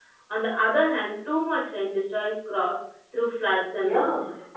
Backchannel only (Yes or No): No